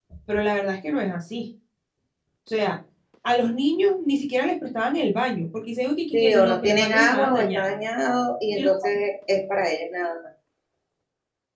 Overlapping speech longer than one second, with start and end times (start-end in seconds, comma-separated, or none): 6.1-7.7